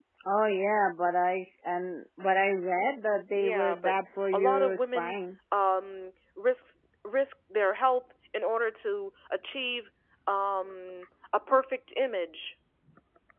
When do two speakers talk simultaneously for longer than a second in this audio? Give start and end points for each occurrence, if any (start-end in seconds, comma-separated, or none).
3.4-5.2